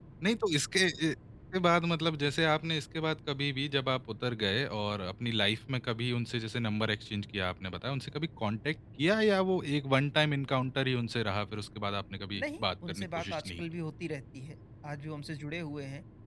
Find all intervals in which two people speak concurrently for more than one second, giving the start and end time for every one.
12.4-13.6

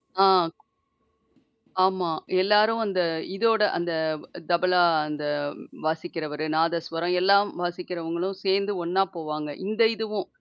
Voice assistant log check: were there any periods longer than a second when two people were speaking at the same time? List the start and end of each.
none

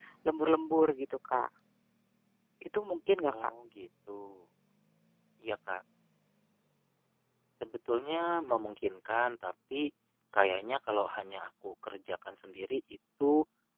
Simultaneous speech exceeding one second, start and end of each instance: none

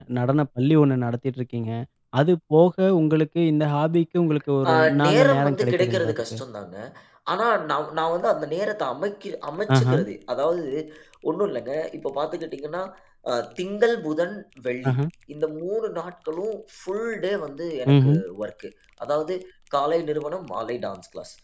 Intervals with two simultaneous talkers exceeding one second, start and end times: 4.7-6.4

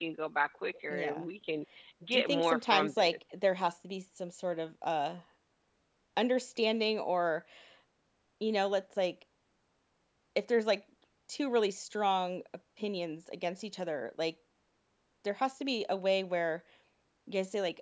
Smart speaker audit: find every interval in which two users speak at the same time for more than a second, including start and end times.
2.1-3.4

